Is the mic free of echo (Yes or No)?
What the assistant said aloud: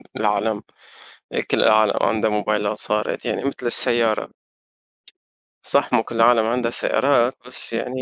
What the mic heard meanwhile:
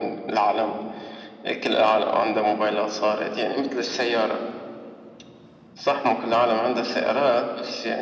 No